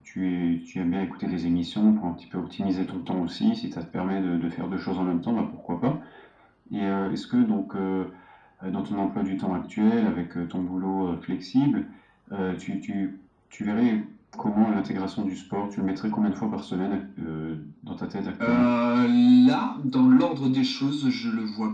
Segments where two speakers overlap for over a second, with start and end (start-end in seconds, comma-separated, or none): none